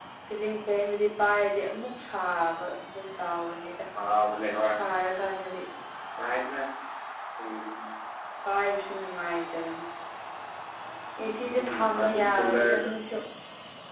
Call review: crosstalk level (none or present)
present